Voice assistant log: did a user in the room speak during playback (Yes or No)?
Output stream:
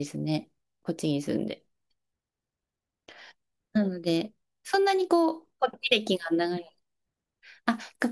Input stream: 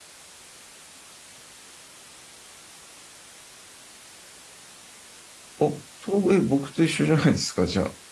Yes